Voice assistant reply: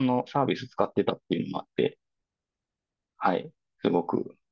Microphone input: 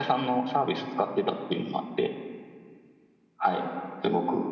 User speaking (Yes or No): No